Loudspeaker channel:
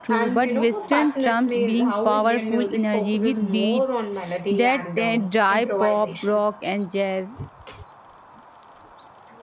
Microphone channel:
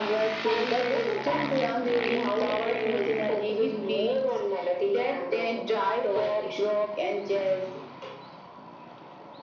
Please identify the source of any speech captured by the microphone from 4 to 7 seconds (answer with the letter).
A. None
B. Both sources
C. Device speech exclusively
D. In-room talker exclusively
C